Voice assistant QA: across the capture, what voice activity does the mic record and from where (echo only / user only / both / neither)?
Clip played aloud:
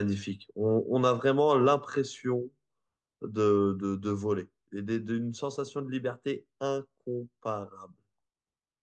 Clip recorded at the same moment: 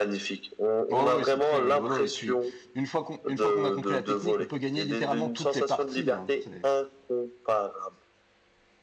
both